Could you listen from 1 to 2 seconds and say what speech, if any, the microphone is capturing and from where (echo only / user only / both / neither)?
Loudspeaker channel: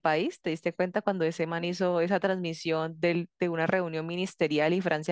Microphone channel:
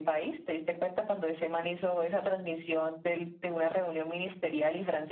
echo only